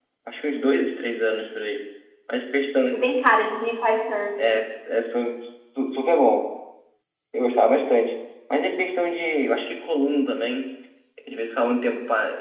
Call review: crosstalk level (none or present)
none